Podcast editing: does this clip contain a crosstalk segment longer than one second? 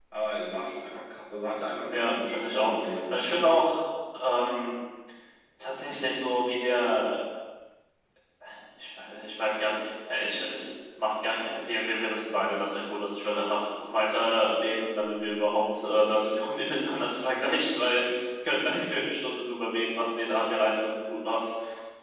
Yes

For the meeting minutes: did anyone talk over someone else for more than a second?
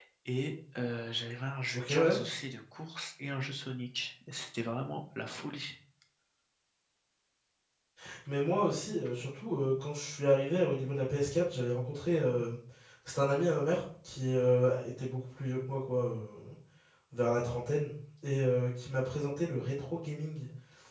No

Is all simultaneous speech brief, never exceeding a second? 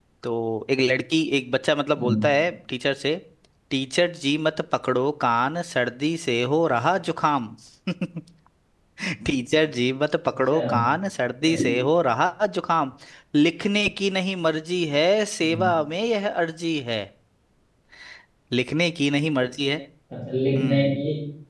Yes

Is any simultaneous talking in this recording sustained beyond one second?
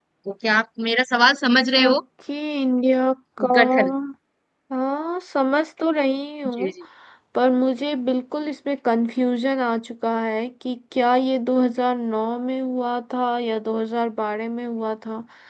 No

